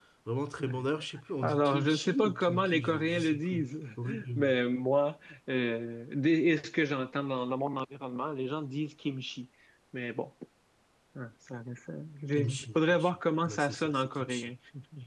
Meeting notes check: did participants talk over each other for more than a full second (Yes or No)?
Yes